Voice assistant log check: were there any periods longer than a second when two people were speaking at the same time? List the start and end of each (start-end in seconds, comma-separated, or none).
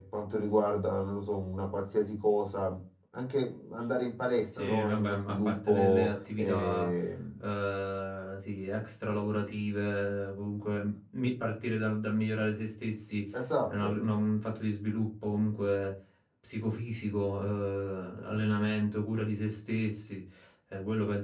4.5-6.9